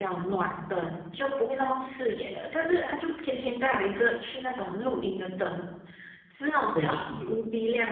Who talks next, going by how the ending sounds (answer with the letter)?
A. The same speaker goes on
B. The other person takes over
A